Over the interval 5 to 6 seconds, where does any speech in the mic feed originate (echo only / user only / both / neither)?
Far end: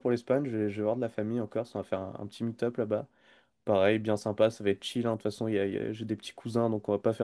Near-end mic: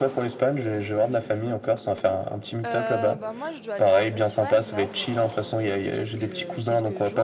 both